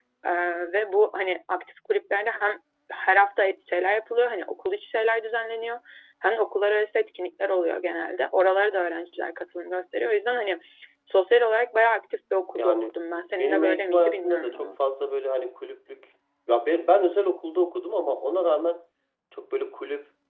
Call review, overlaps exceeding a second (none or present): present